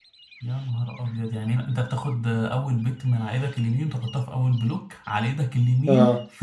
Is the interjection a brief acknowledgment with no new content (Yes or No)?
No